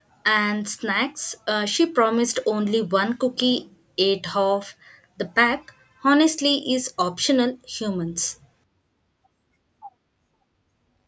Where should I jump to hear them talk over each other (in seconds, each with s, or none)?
none